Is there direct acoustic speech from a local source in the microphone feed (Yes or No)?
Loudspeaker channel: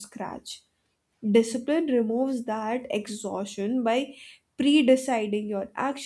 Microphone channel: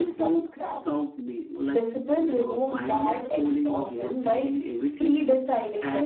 Yes